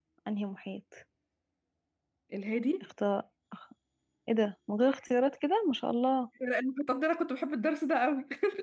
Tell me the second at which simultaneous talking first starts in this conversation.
none

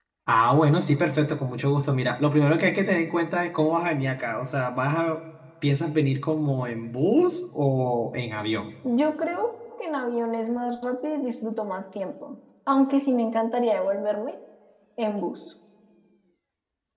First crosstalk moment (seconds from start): none

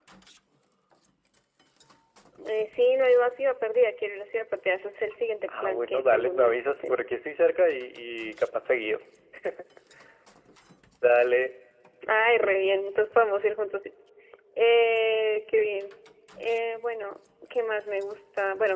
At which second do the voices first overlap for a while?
5.5 s

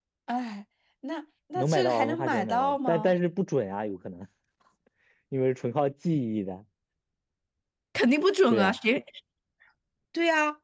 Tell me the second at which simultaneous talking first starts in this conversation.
1.6 s

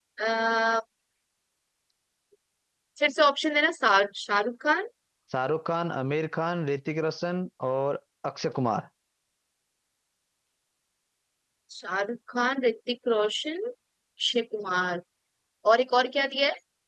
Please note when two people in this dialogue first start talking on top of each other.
none

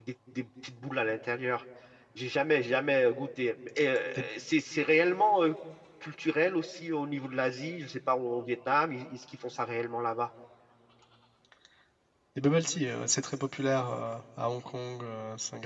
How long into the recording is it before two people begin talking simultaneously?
none

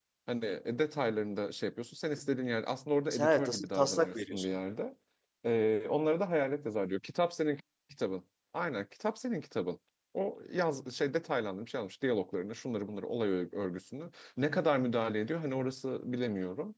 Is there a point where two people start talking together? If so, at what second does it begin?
3.1 s

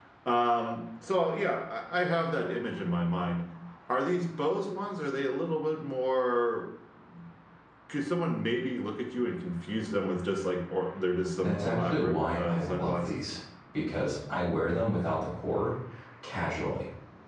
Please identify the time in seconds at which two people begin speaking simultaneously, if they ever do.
11.4 s

